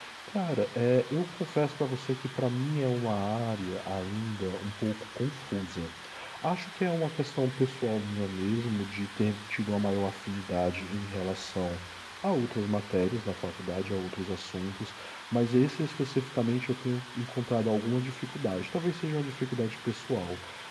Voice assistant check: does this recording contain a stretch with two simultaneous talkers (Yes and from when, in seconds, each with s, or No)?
No